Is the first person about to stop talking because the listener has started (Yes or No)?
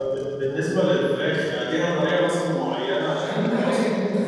Yes